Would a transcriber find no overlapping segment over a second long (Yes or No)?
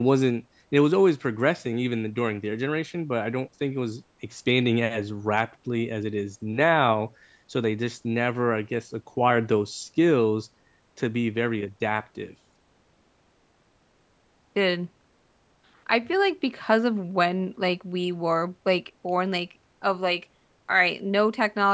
Yes